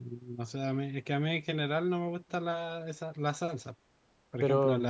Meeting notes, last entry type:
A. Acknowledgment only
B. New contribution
A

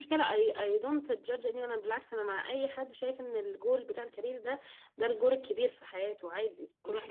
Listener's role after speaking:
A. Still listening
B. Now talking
B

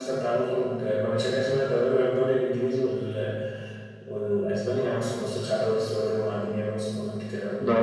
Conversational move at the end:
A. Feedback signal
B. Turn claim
A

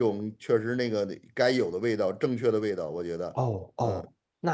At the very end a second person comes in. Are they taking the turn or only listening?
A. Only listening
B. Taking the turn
B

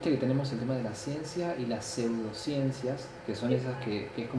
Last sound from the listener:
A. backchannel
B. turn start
A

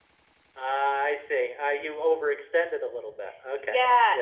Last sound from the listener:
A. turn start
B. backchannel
A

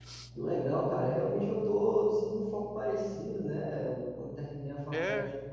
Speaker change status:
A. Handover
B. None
B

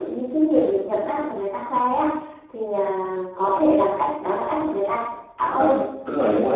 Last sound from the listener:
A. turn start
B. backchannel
A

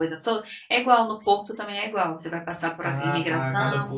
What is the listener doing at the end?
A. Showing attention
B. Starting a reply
B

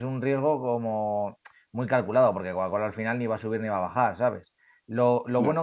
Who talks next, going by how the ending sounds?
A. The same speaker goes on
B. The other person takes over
A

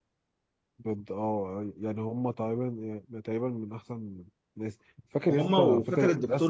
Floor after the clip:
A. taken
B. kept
A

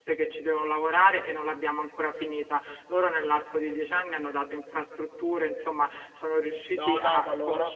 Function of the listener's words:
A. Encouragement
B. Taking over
B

